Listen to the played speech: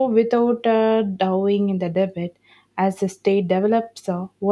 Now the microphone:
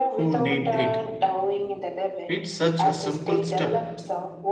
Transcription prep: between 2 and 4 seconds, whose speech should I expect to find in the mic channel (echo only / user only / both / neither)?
both